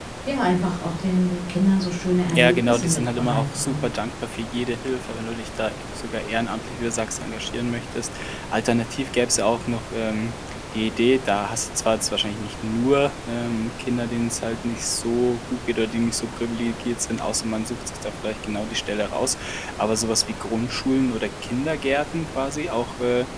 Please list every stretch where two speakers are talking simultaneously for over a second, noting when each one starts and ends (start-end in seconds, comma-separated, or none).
2.3-3.9